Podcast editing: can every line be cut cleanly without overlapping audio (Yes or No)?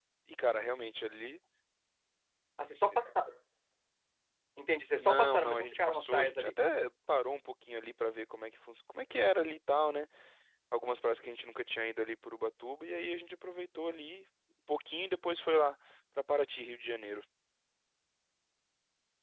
No